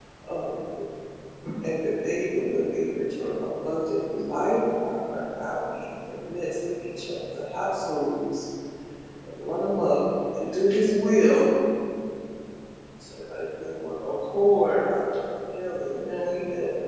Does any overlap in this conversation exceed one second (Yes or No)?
No